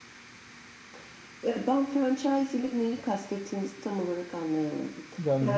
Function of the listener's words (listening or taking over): taking over